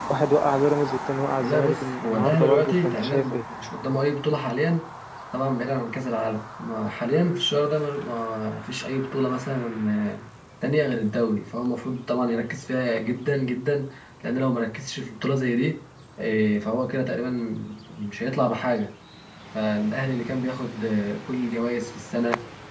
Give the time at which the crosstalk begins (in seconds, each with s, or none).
1.4 s